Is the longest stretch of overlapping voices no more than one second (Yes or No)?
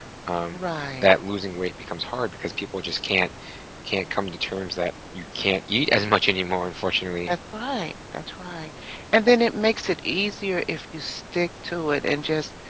Yes